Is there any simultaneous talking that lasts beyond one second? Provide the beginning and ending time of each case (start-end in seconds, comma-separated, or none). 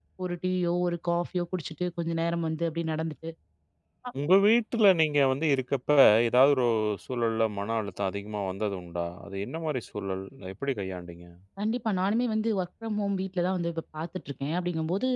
none